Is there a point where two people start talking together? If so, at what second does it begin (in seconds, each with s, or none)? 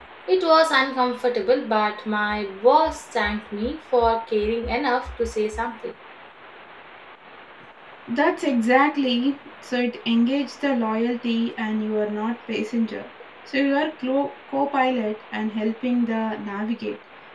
none